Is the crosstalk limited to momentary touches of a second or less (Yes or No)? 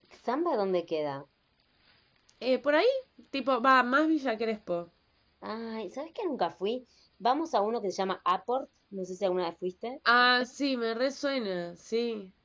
Yes